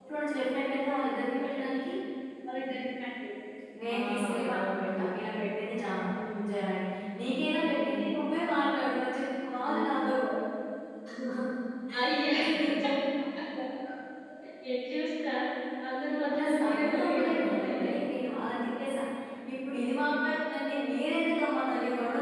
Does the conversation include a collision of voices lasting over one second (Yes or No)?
Yes